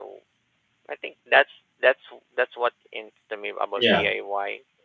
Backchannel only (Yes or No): Yes